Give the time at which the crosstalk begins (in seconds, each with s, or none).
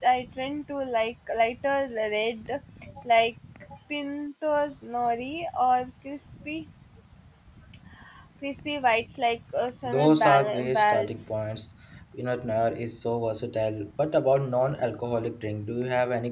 9.8 s